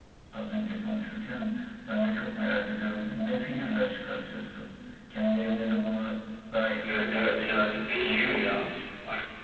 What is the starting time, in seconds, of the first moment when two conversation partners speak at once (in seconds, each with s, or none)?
6.8 s